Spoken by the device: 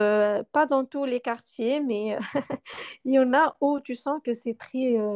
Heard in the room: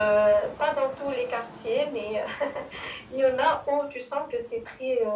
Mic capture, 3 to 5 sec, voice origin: echo only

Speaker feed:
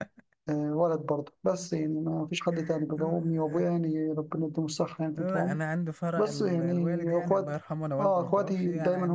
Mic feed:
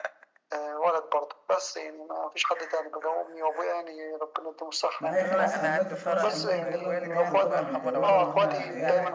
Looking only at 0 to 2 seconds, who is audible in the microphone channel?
echo only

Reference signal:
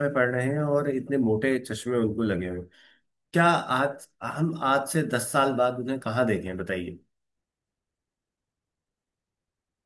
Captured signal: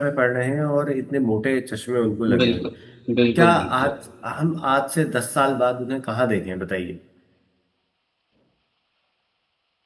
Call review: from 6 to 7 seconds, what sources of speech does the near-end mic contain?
echo only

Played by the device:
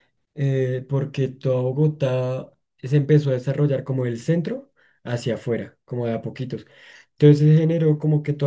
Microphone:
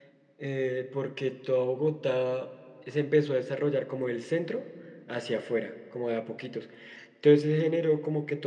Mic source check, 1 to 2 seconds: echo only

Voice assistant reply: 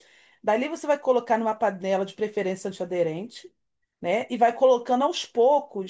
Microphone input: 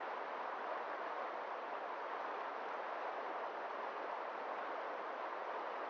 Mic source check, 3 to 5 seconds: neither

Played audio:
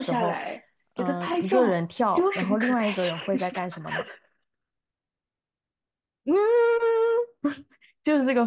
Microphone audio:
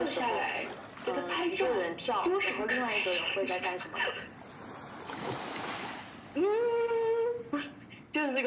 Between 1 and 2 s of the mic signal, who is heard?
echo only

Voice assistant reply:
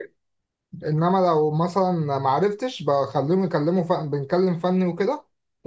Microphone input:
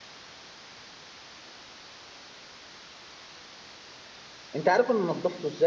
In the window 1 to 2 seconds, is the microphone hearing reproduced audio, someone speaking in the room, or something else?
neither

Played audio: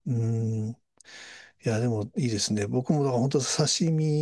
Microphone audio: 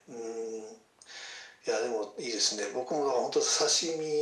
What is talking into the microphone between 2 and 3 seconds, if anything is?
echo only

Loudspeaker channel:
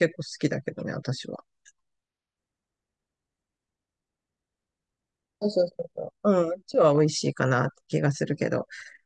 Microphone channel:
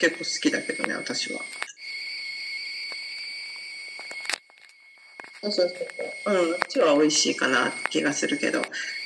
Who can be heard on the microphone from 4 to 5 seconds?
neither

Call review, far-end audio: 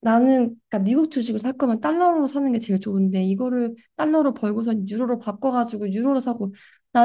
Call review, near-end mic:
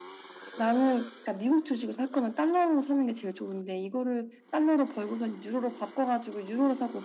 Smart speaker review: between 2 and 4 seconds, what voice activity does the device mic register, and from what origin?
echo only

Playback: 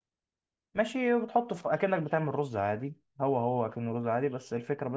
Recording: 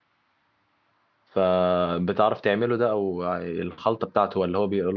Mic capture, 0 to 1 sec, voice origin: neither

